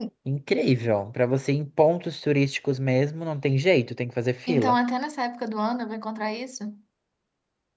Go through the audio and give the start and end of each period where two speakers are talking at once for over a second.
none

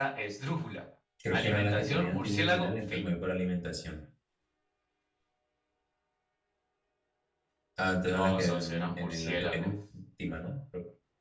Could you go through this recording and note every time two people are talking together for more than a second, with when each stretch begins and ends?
1.3-3.1, 8.1-9.7

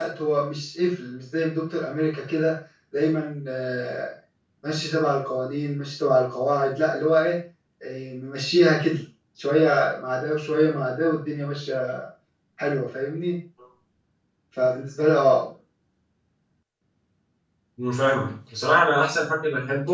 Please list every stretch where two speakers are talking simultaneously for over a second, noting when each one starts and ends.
none

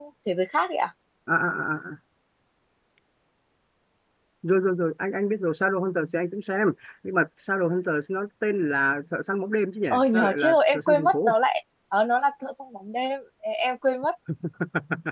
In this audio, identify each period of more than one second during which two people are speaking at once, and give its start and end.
9.9-11.3

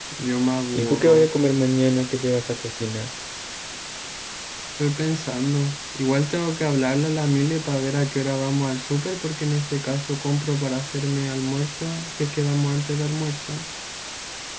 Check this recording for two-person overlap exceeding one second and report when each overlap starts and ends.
none

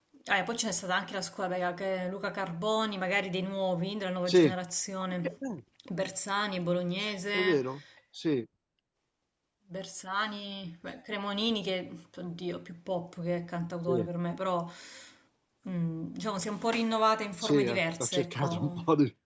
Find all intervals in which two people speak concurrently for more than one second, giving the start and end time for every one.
17.4-18.8

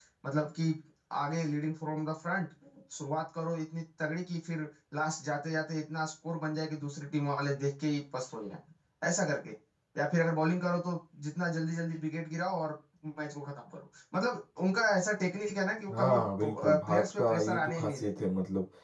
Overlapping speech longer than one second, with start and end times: 15.9-18.1

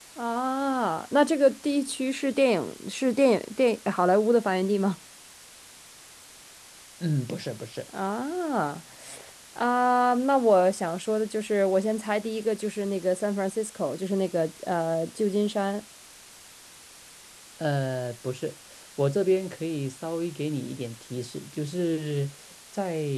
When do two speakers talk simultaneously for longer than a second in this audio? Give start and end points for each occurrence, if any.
none

